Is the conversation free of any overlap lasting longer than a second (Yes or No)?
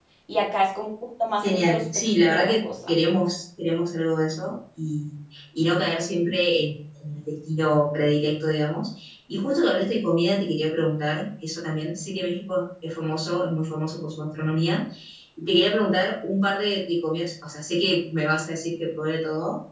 No